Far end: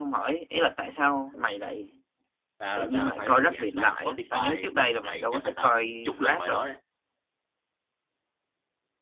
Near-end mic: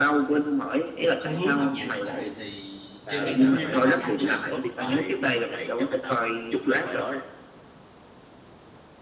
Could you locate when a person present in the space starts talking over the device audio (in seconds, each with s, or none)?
1.2 s